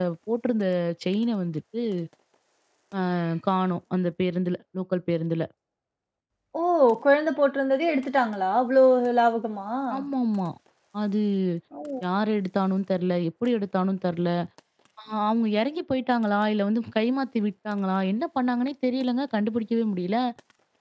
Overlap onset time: none

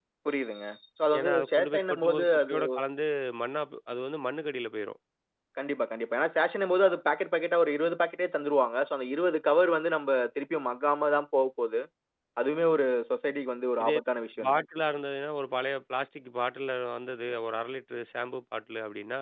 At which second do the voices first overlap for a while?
1.2 s

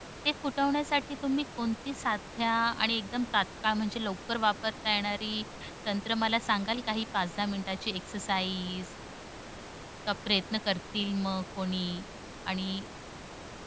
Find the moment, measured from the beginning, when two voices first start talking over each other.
none

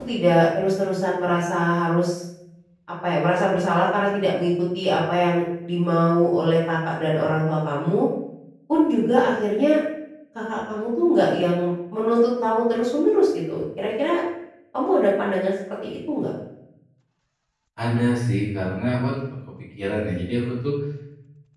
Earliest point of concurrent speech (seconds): none

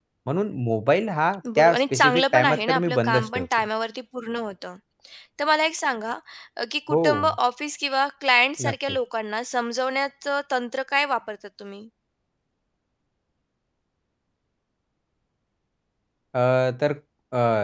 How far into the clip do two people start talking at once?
1.6 s

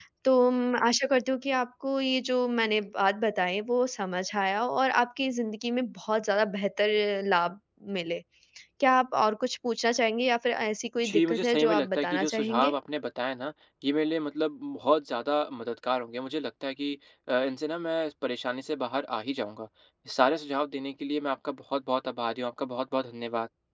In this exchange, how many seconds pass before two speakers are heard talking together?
11.0 s

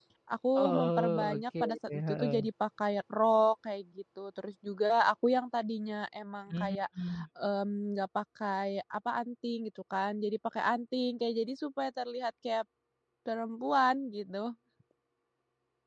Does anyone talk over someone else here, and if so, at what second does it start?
0.6 s

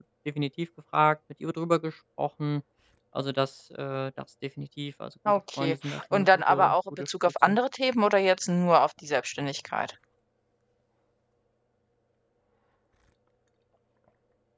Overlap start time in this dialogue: 5.2 s

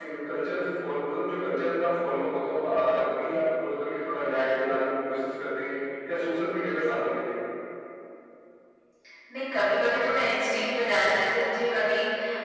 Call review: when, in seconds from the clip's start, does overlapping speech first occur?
none

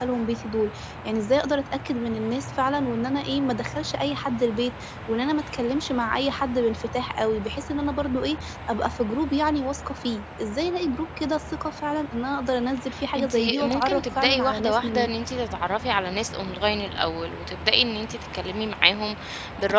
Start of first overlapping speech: 13.2 s

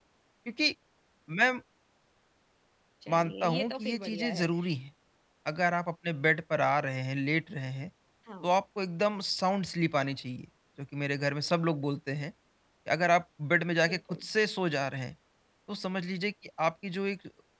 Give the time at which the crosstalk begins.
3.1 s

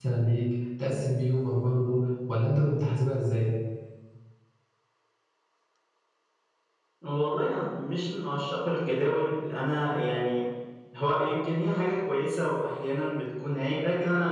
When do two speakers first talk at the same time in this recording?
none

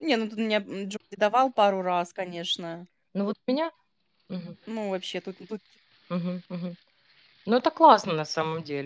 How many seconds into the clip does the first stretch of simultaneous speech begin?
none

